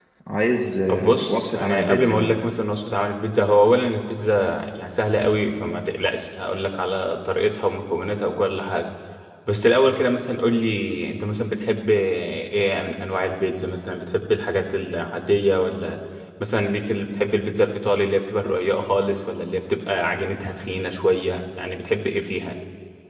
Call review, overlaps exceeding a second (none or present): present